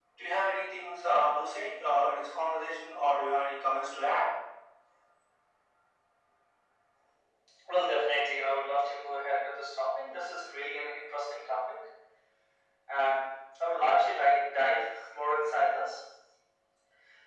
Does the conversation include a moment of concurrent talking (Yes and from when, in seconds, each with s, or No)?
No